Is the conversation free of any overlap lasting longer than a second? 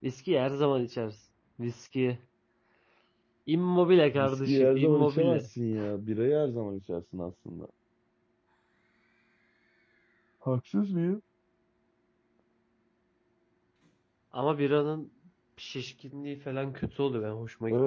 No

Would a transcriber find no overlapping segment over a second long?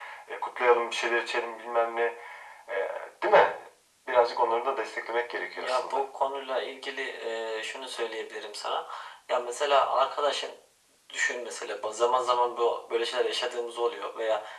Yes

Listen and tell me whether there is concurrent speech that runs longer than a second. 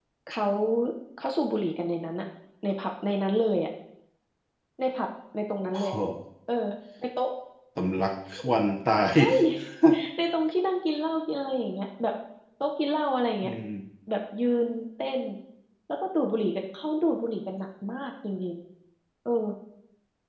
No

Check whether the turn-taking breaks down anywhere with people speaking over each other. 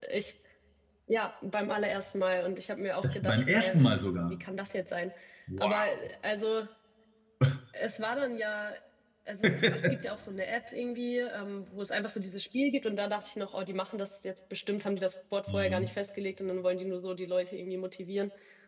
Yes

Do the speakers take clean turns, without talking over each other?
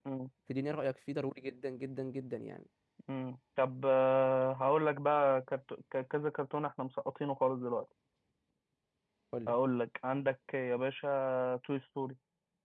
Yes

